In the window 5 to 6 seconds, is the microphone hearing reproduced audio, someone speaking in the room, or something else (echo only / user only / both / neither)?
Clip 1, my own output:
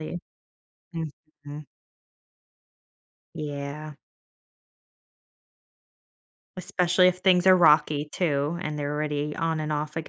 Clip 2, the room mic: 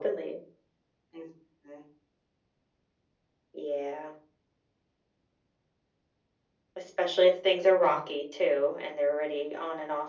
neither